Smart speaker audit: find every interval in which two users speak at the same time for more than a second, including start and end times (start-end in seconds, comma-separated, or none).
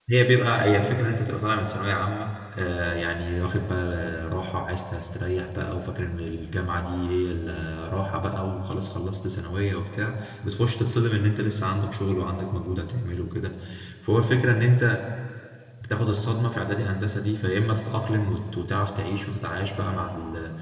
none